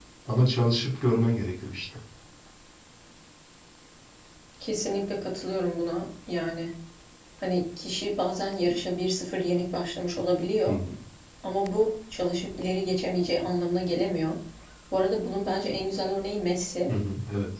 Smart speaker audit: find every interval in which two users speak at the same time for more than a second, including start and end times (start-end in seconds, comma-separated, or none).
none